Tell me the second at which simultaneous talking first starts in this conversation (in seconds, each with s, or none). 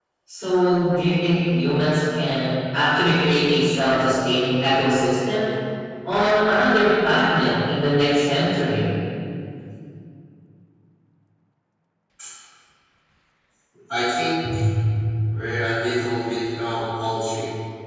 none